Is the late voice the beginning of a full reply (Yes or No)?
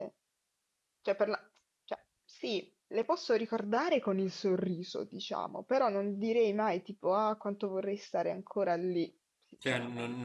Yes